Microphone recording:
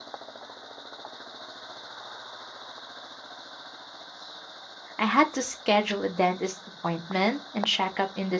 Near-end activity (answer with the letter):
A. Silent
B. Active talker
B